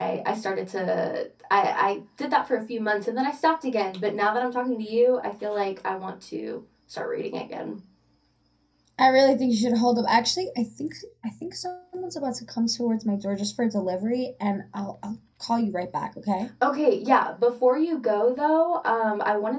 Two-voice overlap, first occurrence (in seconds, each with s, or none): none